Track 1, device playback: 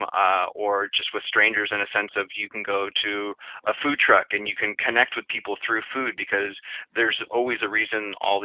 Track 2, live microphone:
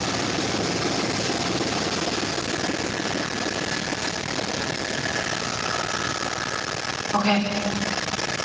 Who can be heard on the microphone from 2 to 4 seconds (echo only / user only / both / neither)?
neither